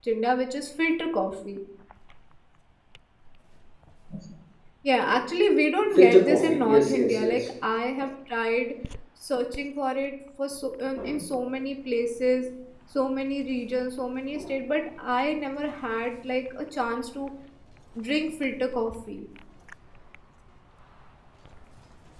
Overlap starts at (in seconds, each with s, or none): 5.9 s